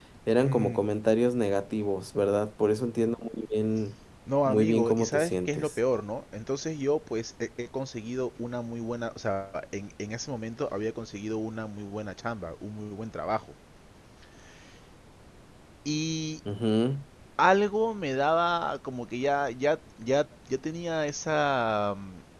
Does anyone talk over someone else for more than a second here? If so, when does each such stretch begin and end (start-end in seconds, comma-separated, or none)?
4.5-5.7